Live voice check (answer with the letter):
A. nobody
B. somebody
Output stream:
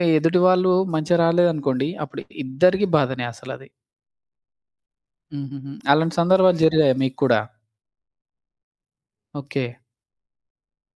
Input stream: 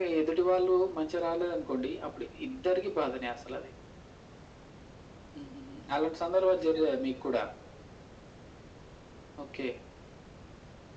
A